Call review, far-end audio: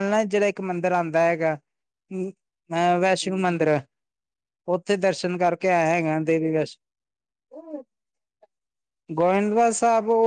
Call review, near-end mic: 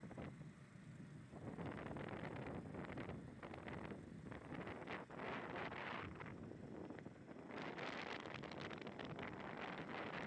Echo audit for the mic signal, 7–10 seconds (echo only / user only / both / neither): neither